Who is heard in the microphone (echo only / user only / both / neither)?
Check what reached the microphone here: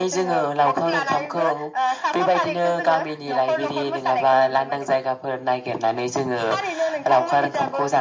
echo only